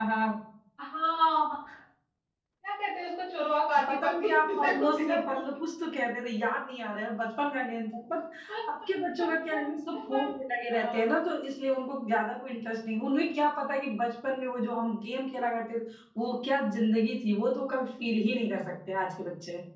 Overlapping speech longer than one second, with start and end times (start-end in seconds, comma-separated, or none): 3.9-5.4